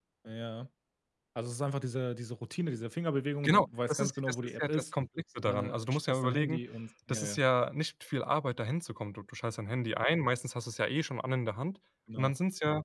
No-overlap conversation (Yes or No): No